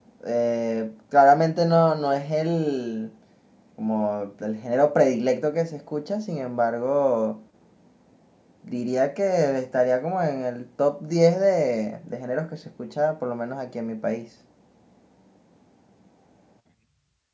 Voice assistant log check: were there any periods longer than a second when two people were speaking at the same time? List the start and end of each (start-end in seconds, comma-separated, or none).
none